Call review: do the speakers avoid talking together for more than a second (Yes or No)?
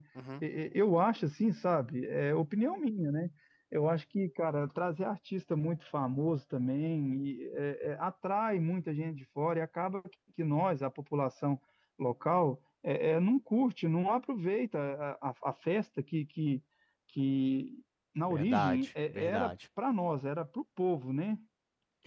No